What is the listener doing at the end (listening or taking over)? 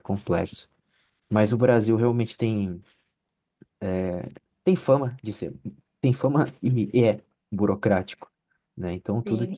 taking over